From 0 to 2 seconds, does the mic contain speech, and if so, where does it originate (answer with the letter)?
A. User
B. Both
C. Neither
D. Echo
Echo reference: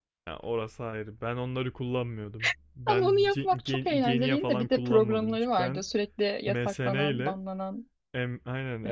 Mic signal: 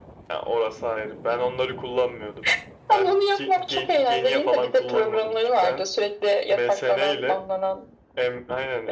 D